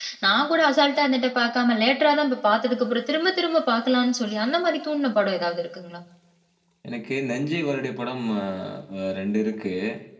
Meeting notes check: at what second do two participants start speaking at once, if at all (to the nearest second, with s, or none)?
none